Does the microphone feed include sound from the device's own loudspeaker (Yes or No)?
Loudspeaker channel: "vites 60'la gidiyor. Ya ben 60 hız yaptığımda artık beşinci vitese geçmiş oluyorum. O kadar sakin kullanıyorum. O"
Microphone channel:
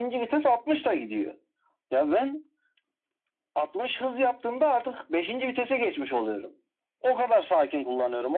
Yes